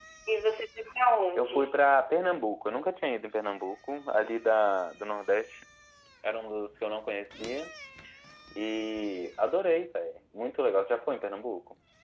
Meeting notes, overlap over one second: none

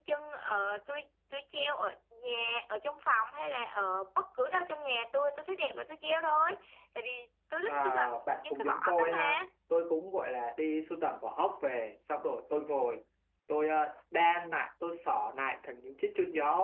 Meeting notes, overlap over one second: present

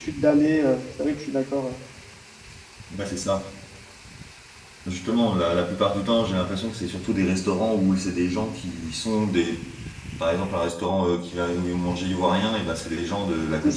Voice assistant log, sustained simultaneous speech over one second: none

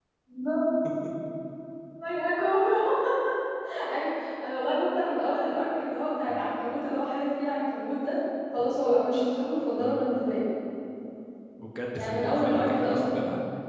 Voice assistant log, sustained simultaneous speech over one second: present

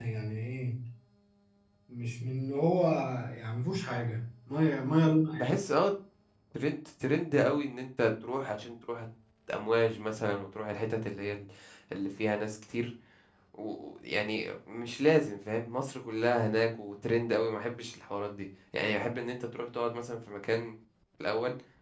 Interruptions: none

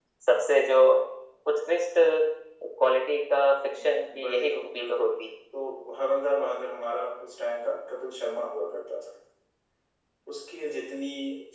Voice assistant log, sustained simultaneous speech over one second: present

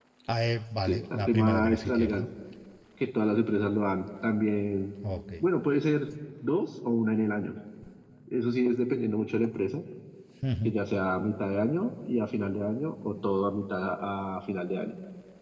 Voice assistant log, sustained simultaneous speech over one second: present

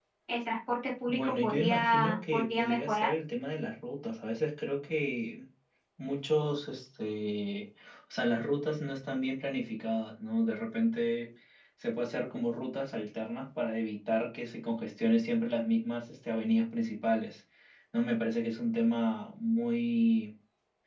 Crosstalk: present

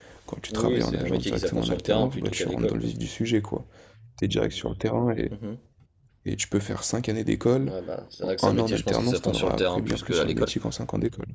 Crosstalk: present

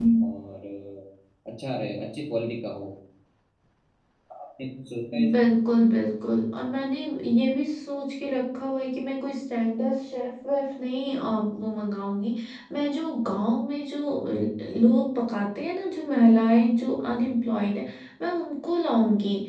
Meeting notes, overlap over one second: none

